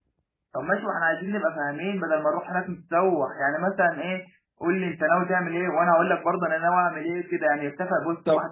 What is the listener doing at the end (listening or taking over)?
listening